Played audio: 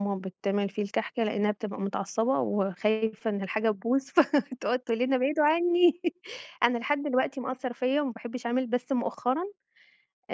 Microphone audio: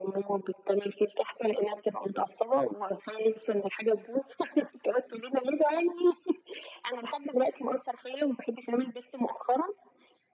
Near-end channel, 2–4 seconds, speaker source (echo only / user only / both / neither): echo only